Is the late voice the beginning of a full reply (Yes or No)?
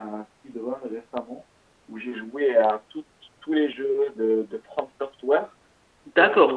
Yes